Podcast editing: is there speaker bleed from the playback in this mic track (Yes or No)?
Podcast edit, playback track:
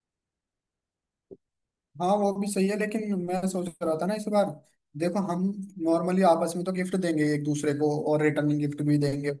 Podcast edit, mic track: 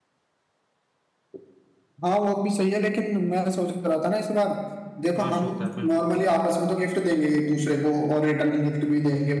Yes